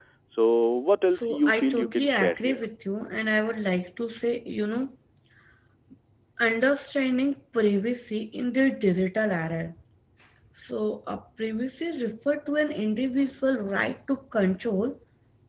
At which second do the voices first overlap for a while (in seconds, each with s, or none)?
1.1 s